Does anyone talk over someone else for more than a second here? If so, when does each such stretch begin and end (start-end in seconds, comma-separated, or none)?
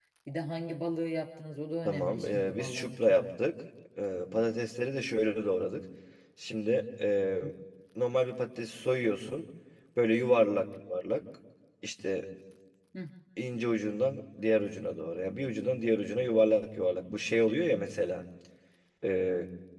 1.8-3.2